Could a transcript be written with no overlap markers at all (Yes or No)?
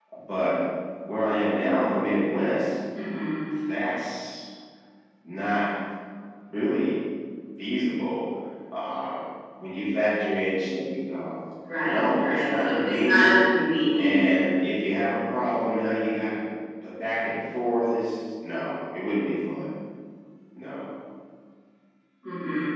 No